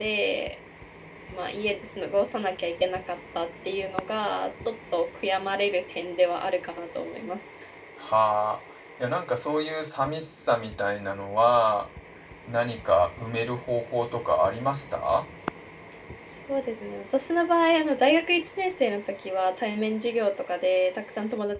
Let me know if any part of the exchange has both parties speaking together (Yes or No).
No